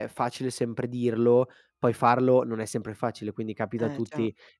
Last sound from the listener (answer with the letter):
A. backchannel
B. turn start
A